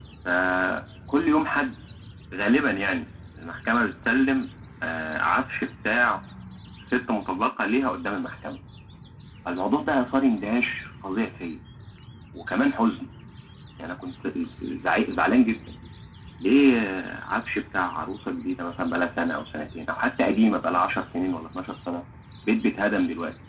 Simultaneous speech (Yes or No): No